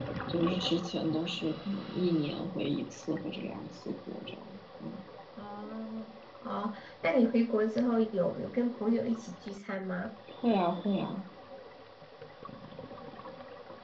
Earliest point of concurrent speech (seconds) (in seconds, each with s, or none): none